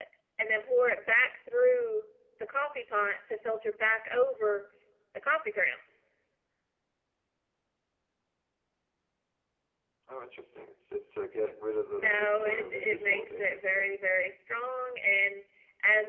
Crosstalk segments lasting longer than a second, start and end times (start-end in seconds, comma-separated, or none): 11.9-13.9